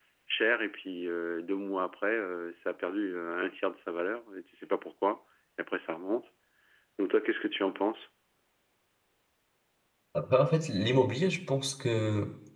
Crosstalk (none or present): none